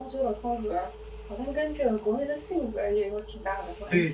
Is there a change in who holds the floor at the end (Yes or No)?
Yes